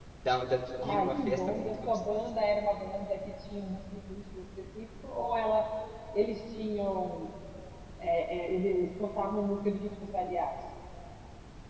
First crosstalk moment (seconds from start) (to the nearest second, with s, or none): 1 s